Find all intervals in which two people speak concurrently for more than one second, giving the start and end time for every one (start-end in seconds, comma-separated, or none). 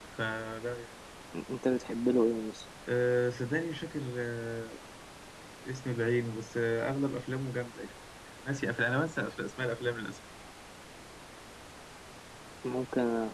none